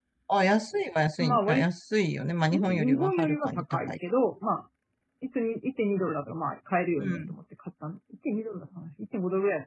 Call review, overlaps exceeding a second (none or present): present